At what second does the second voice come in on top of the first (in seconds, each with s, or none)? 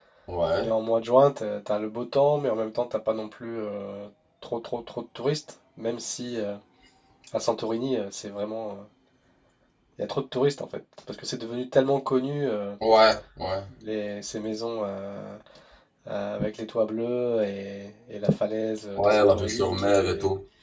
18.9 s